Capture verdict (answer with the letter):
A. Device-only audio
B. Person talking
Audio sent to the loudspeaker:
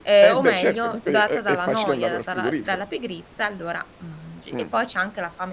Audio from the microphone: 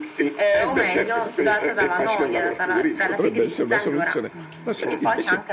B